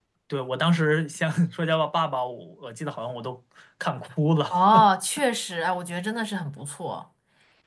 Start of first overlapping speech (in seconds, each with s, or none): none